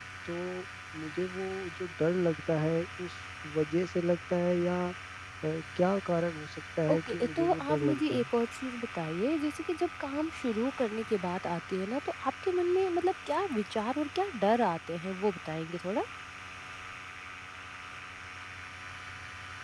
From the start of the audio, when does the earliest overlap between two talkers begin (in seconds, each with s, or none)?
6.9 s